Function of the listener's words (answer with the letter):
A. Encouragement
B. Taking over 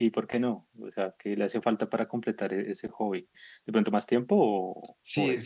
B